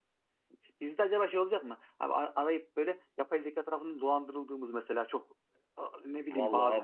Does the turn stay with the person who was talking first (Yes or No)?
No